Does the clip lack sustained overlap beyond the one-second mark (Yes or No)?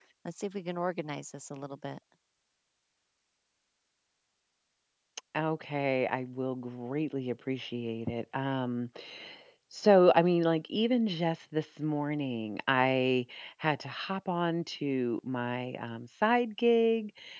Yes